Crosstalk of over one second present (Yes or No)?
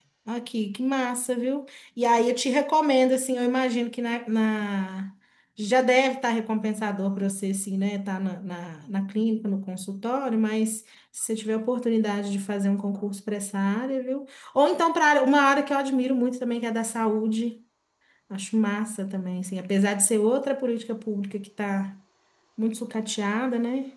No